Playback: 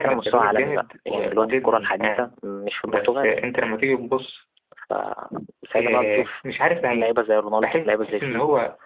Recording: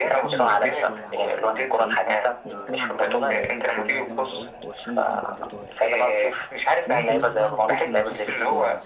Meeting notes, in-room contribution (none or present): present